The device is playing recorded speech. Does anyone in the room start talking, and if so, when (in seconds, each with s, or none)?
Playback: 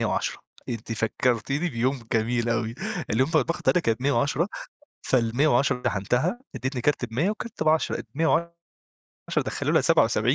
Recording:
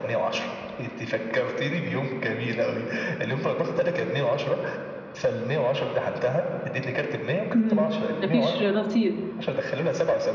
7.5 s